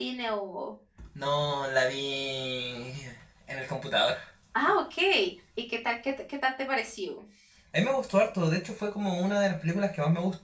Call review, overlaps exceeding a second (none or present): none